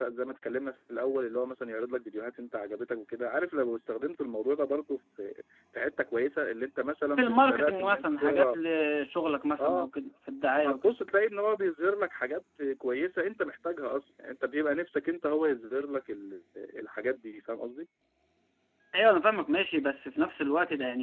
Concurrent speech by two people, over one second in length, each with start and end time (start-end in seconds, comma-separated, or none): 7.2-8.6